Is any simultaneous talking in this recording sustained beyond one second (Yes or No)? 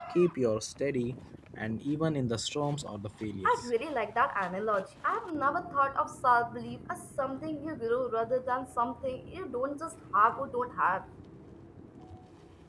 No